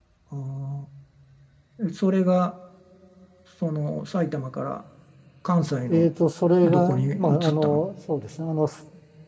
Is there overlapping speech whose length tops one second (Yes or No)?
Yes